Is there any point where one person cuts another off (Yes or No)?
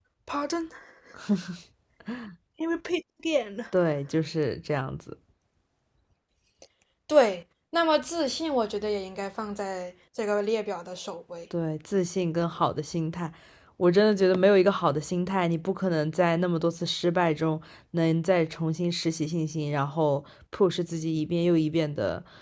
No